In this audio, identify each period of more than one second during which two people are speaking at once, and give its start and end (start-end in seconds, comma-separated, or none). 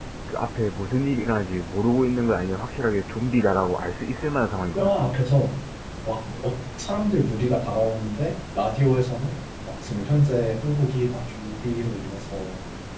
none